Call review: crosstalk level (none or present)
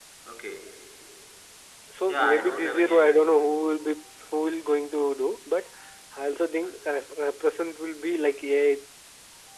present